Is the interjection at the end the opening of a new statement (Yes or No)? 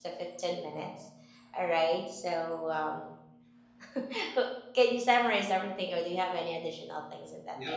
Yes